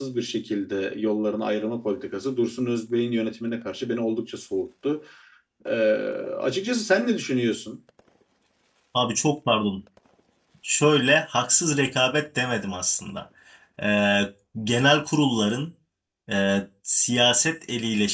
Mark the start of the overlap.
none

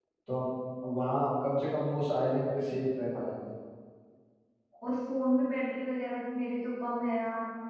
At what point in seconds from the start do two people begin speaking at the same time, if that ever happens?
none

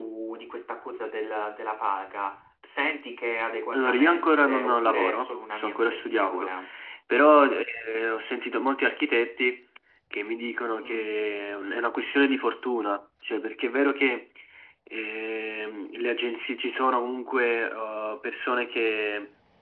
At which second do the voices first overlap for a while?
3.7 s

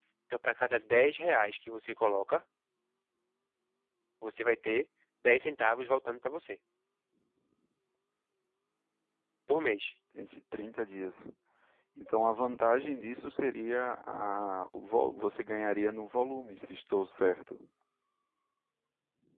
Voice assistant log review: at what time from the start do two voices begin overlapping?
none

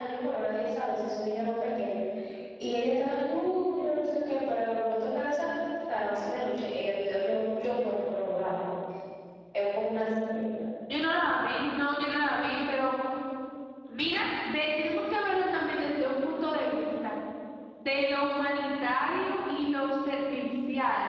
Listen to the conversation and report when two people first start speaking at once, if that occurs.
none

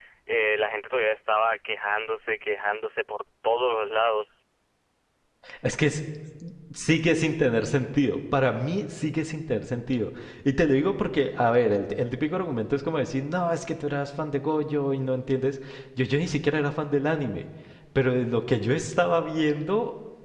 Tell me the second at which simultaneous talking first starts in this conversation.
none

